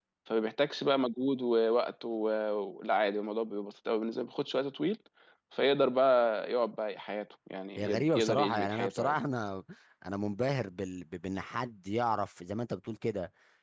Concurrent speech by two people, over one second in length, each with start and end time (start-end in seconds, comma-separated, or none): 7.8-9.1